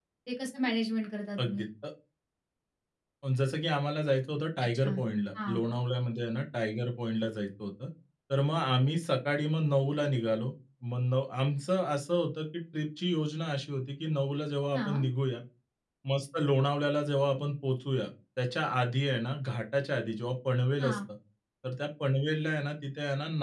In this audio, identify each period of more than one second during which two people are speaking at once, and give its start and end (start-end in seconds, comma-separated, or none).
none